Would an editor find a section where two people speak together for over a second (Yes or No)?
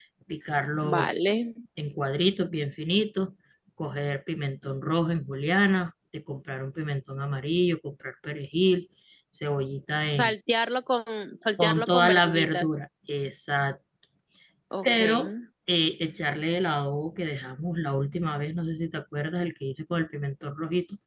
Yes